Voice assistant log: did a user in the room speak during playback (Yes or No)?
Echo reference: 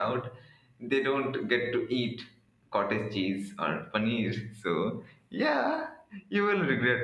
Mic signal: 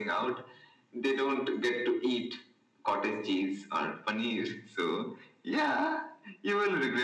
No